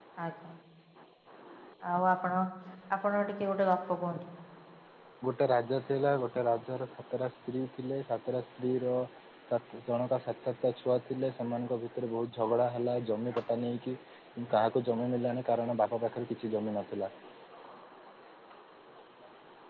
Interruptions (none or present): none